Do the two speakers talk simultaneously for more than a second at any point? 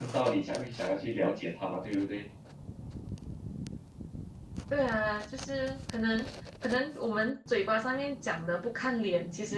No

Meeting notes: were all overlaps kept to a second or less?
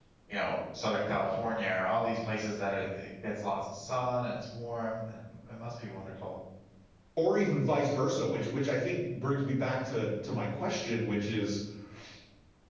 Yes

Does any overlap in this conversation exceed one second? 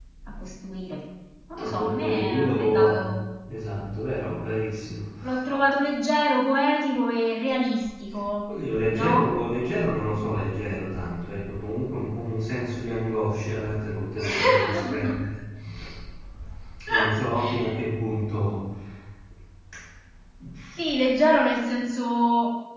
Yes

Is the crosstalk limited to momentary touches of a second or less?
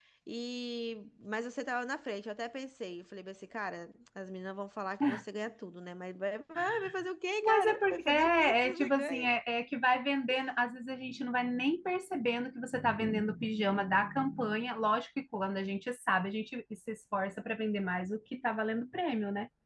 No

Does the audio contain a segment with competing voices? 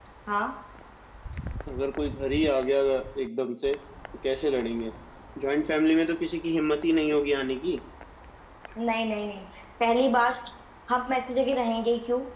No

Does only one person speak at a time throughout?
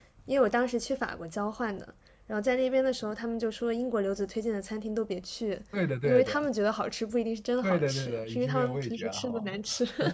No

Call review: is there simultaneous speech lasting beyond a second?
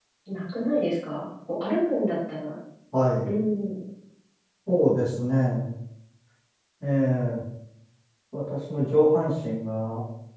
No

